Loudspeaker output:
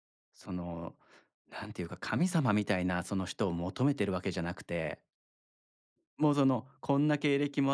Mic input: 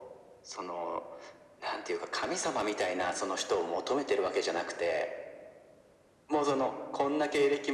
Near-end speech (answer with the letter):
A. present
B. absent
B